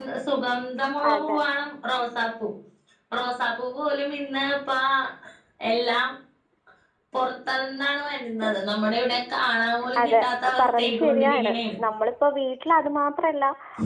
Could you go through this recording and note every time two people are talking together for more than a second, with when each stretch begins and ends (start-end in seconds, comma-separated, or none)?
10.0-11.6